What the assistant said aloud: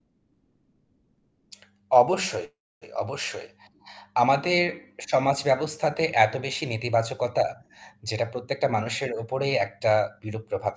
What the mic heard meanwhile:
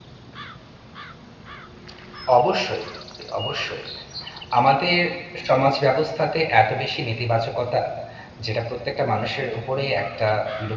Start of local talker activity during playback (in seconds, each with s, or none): none